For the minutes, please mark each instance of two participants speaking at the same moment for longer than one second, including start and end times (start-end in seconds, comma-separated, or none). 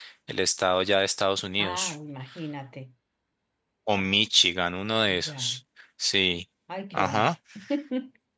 none